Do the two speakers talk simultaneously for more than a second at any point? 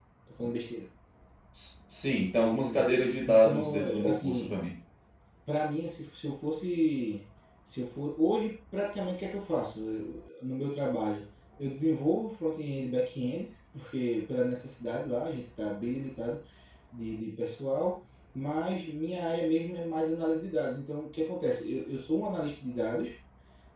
Yes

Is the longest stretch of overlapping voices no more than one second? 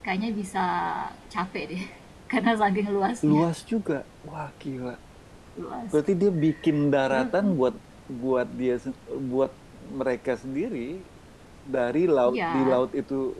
Yes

